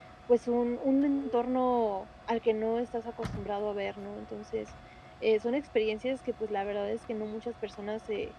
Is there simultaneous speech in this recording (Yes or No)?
No